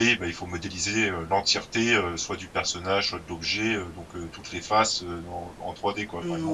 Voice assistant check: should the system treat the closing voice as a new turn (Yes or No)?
Yes